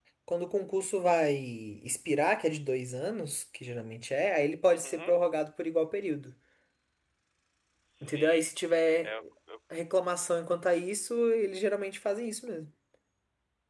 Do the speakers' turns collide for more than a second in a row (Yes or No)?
No